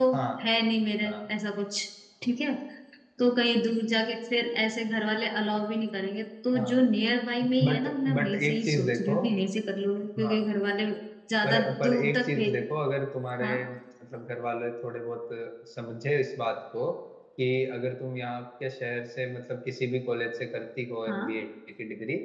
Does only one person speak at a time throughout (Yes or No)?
No